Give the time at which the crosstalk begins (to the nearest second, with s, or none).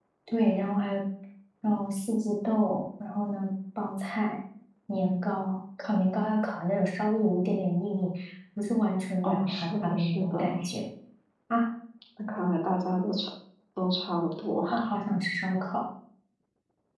9 s